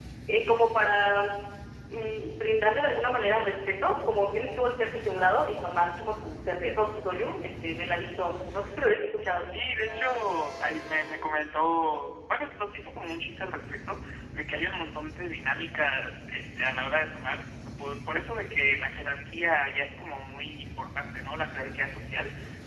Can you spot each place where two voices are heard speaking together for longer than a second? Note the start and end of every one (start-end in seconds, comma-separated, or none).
none